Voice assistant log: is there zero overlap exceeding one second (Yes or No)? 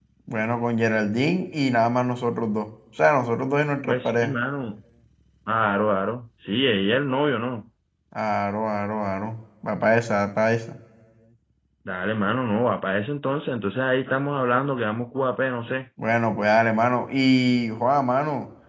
Yes